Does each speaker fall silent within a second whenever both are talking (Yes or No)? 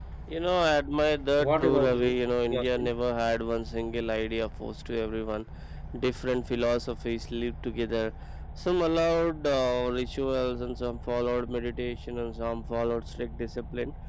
No